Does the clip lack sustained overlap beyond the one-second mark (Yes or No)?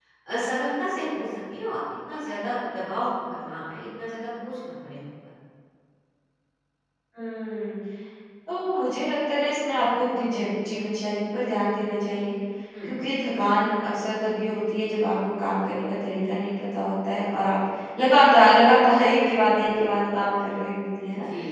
Yes